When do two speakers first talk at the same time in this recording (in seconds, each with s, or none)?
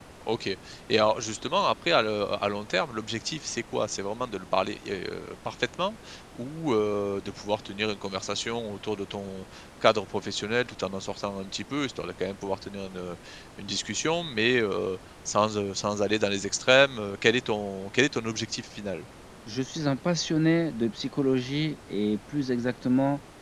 none